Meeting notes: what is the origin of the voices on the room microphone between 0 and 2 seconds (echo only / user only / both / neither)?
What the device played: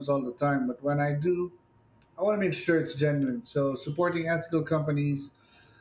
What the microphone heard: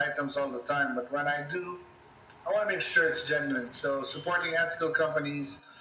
echo only